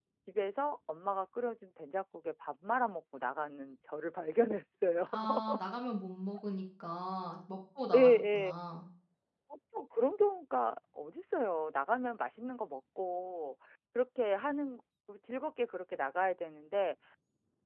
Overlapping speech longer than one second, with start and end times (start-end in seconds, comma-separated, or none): none